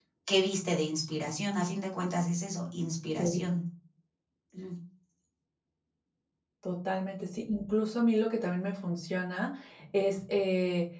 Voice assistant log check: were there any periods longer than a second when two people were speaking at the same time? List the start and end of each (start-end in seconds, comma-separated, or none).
none